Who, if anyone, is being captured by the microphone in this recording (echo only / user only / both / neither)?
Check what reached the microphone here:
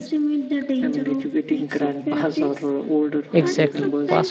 both